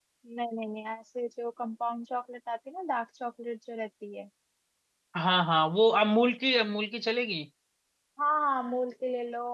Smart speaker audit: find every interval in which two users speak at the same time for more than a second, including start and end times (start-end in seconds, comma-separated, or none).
none